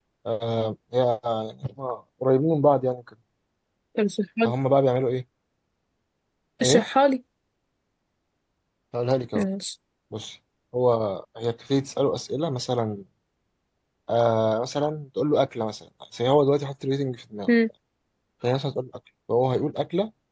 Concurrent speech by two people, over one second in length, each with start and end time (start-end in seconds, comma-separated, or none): none